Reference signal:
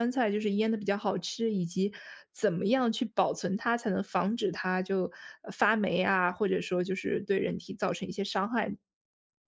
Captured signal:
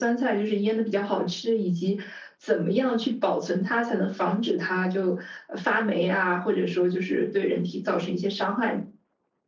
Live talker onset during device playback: none

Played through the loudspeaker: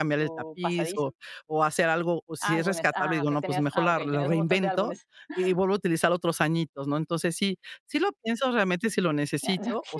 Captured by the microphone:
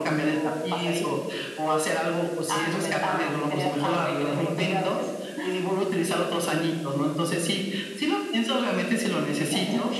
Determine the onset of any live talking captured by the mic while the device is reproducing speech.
none

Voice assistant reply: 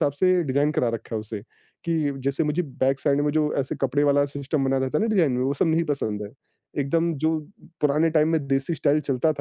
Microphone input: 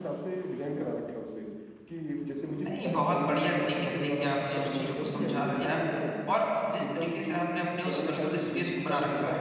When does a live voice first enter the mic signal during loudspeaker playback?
2.6 s

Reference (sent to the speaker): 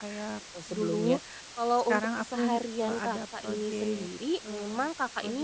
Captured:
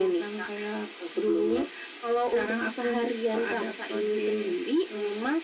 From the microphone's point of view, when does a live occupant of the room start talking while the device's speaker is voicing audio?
none

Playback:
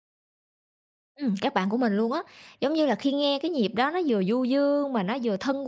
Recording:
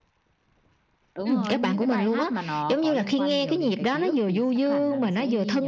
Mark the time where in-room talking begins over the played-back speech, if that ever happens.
1.1 s

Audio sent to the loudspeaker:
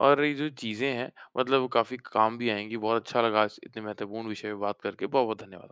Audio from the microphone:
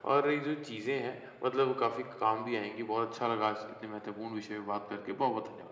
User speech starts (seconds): none

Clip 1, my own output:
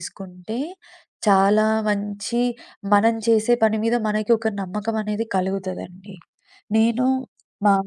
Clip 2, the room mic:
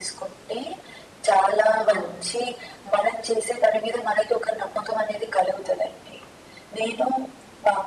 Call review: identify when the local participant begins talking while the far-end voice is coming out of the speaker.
1.9 s

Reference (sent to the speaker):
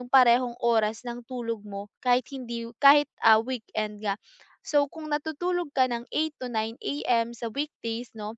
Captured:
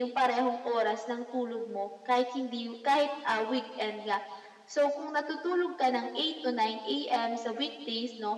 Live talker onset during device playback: none

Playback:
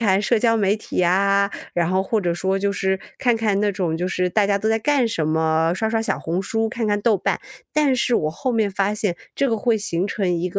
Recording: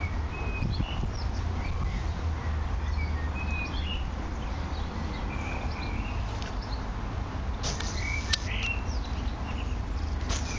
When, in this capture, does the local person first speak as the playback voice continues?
none

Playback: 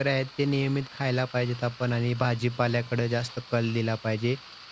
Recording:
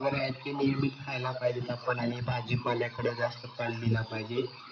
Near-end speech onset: none

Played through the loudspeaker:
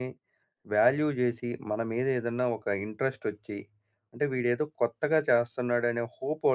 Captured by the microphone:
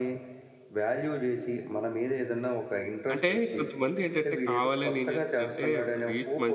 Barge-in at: 3.1 s

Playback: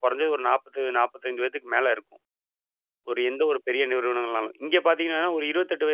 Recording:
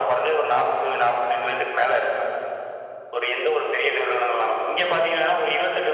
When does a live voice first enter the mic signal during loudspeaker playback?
none

